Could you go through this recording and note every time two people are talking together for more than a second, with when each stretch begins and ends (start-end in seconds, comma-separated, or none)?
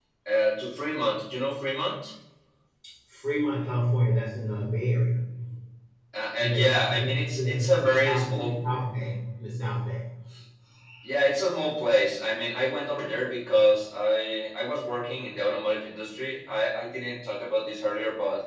6.4-8.5